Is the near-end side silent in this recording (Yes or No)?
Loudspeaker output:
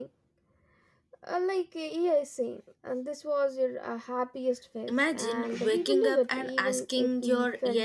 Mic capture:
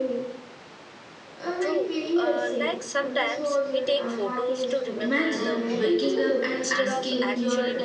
No